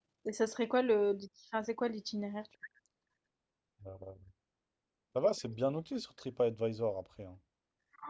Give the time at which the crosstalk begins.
none

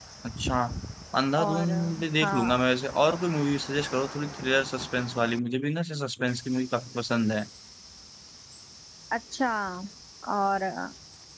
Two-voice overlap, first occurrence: 1.4 s

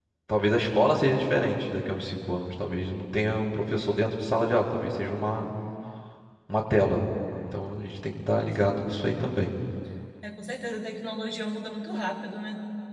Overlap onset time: none

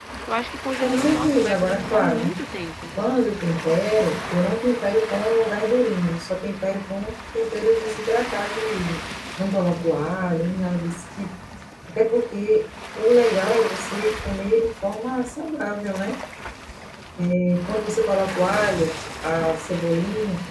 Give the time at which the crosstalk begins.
0.8 s

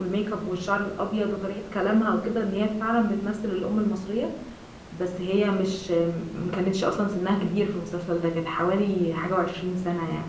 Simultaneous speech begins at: none

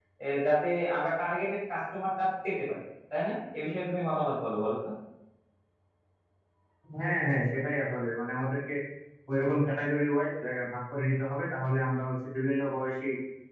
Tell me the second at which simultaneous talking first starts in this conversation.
none

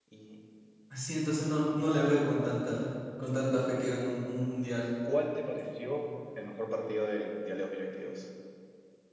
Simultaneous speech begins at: none

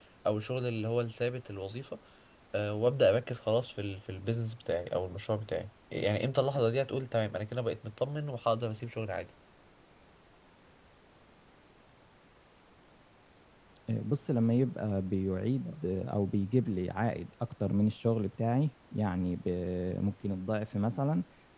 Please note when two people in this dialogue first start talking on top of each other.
none

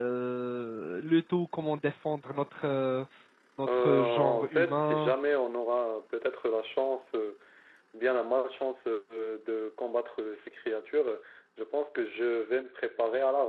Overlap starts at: 3.7 s

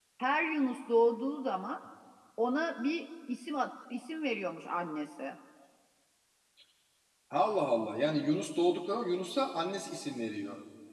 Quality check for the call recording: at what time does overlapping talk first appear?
none

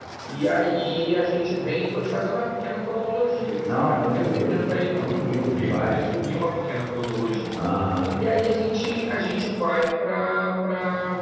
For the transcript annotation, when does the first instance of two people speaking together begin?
3.7 s

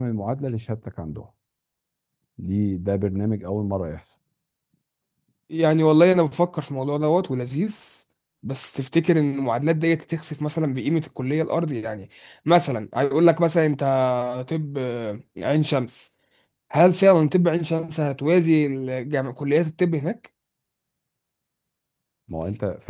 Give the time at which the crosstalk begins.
none

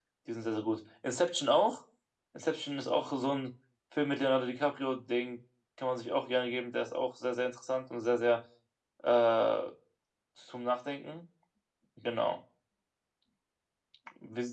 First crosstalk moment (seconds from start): none

